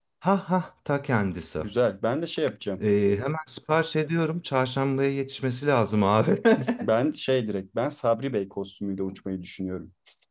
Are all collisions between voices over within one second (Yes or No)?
Yes